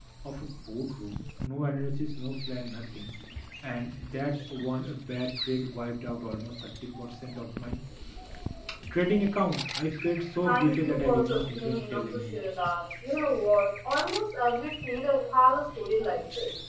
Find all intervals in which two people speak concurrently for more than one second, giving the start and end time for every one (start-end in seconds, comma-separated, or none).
10.4-12.5